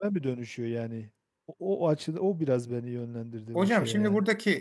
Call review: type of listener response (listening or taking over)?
taking over